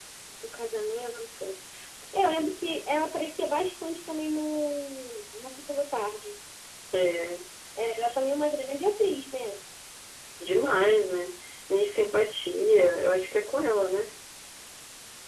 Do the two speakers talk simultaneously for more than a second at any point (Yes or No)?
No